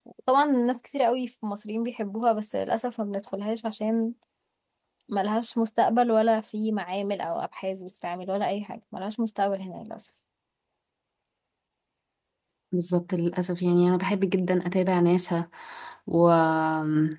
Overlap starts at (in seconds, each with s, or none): none